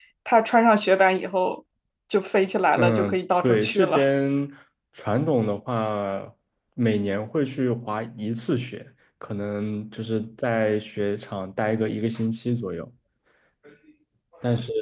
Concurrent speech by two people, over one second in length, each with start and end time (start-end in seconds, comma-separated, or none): 2.8-4.1